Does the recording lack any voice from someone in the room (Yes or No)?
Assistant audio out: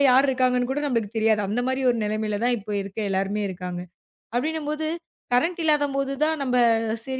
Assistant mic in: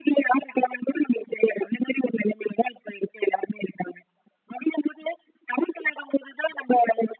Yes